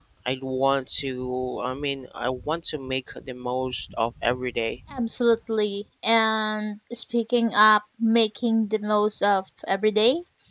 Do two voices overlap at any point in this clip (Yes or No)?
No